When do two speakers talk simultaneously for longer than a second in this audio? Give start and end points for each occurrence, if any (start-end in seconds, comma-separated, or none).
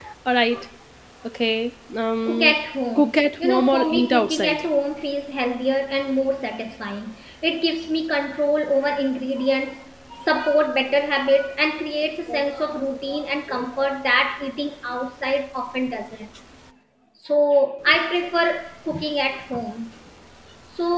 3.0-4.6